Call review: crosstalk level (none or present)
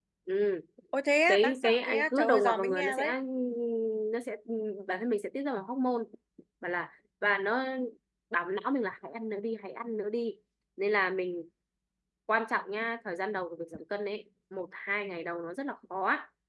present